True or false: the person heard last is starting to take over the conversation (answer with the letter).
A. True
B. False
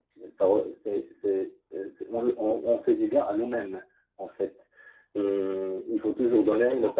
B